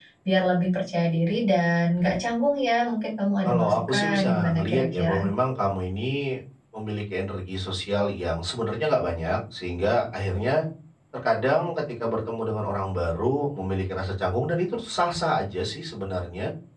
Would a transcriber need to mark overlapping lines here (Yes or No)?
Yes